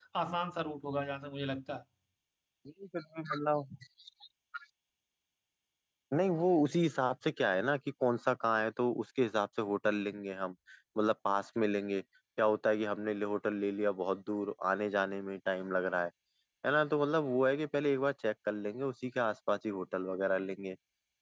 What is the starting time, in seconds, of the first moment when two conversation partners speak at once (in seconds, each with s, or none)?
none